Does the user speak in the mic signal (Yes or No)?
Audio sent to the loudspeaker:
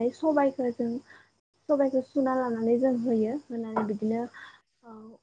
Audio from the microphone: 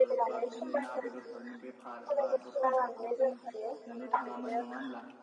Yes